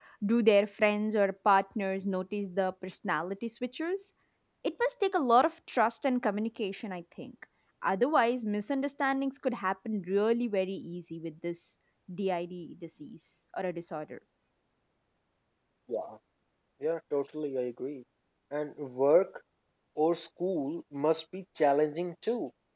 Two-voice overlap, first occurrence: none

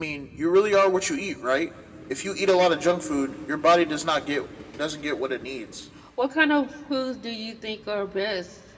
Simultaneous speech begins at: none

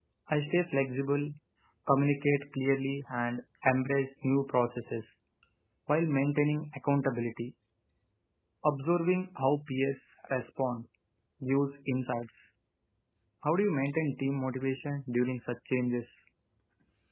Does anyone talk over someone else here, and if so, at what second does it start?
none

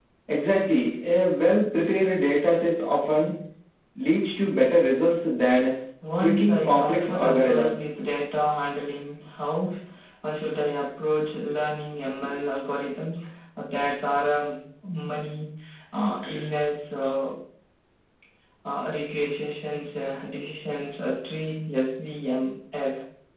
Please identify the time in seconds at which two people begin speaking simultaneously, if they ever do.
6.2 s

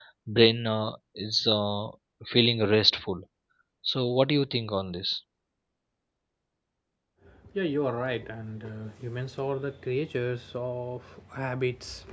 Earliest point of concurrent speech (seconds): none

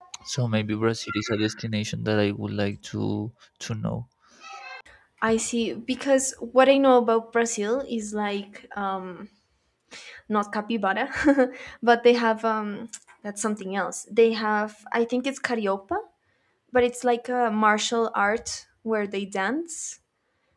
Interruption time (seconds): none

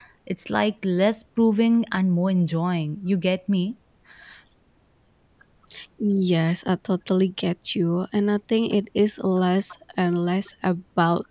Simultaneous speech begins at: none

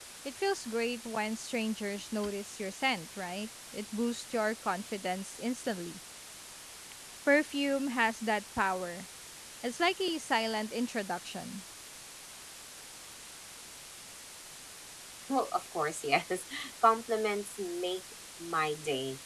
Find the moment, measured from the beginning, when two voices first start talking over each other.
none

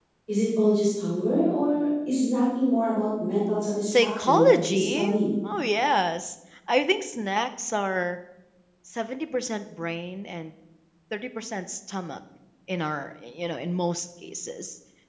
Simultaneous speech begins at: 3.9 s

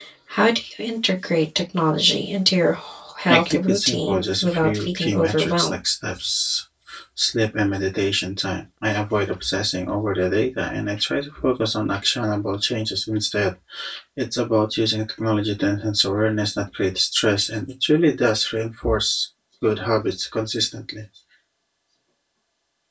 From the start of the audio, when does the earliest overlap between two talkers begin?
3.3 s

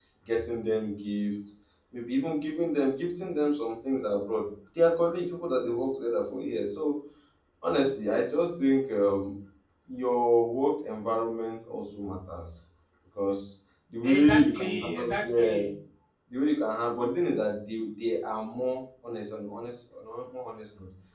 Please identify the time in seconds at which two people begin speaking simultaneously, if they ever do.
14.0 s

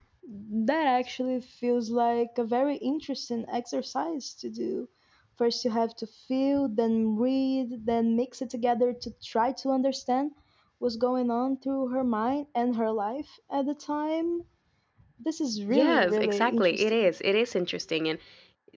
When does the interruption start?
15.7 s

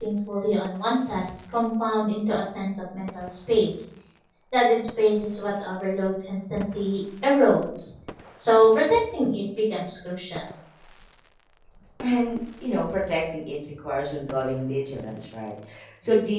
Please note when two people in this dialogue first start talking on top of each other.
none

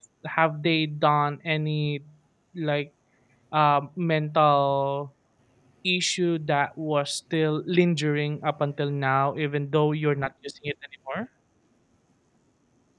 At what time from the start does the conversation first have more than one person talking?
none

